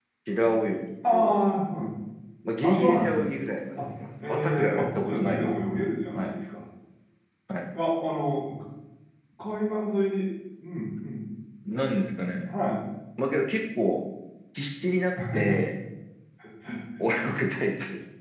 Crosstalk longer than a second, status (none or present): present